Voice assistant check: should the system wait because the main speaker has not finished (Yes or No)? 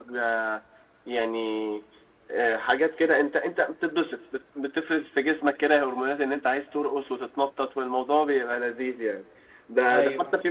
Yes